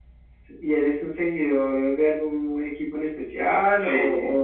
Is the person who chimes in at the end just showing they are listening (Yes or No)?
No